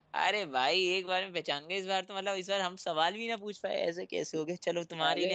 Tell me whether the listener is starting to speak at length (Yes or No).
No